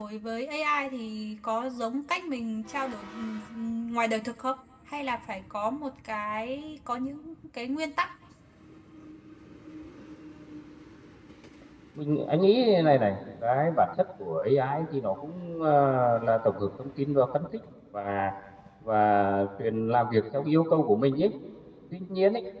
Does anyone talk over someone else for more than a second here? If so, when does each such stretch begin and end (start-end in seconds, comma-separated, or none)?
none